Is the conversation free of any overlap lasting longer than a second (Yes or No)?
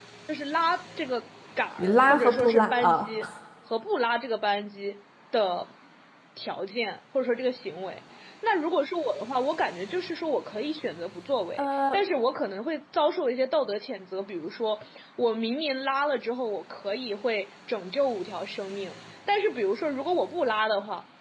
No